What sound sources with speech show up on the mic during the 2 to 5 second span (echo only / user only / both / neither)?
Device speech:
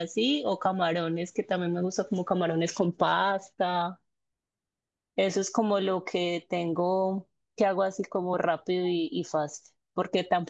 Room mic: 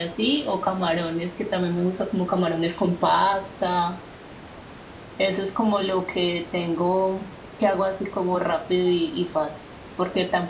echo only